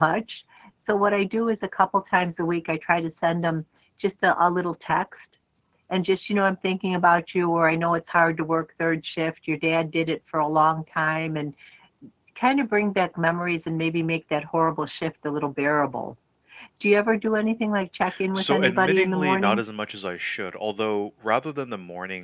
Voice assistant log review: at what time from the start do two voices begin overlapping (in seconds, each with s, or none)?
18.3 s